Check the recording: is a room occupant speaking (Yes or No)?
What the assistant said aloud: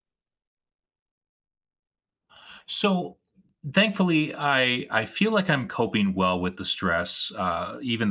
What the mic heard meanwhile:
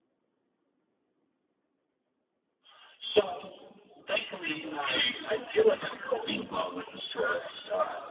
No